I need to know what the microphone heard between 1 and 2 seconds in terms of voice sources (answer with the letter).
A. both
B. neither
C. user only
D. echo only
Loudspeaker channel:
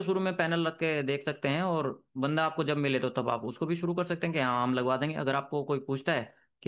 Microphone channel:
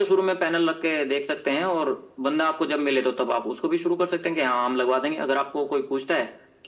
D